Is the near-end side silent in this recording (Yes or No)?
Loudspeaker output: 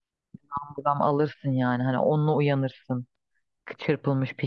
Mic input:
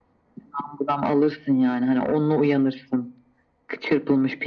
Yes